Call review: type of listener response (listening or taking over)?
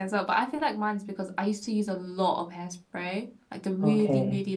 listening